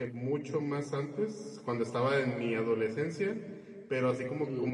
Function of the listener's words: listening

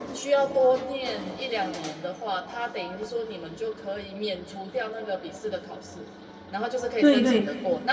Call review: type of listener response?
listening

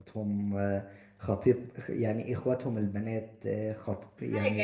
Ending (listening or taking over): listening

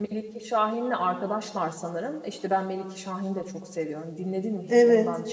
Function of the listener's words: taking over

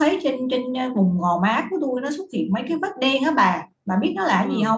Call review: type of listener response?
taking over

